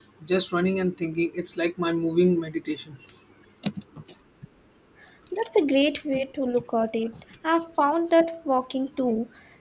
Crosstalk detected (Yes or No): No